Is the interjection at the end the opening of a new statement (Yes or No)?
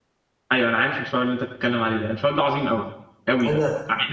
No